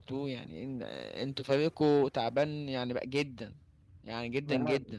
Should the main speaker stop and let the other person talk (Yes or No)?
Yes